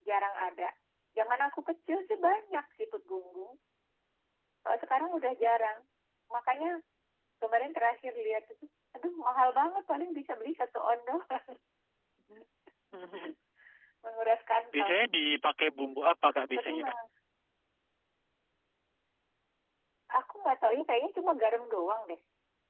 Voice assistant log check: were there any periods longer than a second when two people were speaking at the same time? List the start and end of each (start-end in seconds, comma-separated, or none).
none